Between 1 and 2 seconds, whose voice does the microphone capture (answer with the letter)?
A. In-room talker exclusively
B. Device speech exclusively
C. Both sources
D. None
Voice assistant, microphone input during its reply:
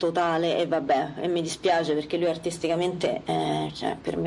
B